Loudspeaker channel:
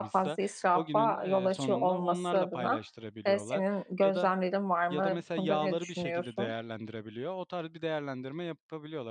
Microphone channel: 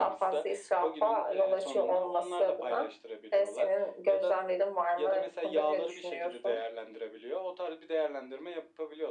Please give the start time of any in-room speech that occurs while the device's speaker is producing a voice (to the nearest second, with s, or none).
none